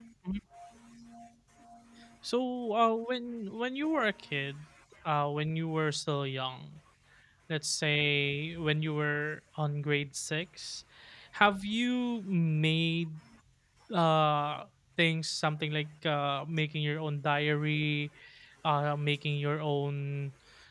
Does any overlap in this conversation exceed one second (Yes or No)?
No